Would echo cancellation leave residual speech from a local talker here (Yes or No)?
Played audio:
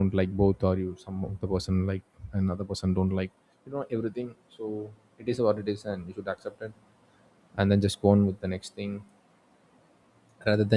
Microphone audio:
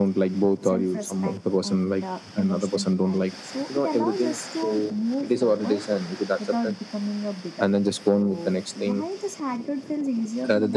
Yes